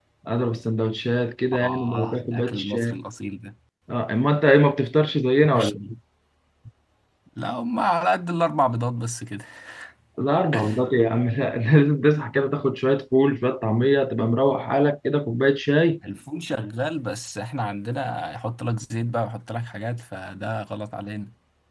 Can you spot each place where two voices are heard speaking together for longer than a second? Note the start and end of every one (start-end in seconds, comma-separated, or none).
1.6-3.0